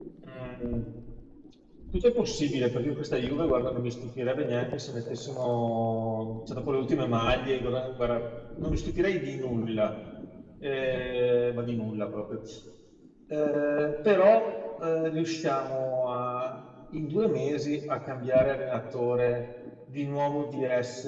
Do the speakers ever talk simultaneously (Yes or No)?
No